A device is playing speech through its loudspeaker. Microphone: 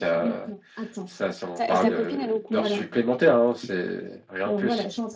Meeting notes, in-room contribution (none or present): present